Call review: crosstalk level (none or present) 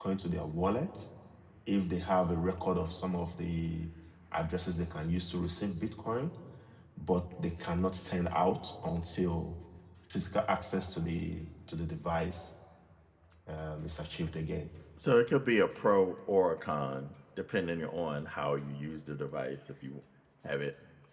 none